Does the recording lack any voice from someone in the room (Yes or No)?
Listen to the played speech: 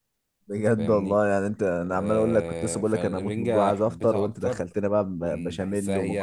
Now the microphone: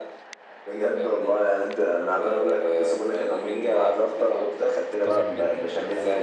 No